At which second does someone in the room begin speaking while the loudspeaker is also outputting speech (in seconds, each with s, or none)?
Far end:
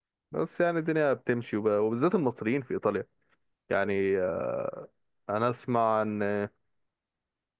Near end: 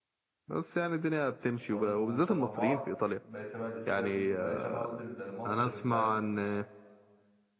1.7 s